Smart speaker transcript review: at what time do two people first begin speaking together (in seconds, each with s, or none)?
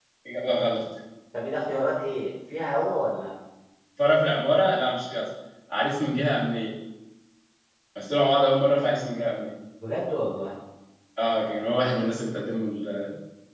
none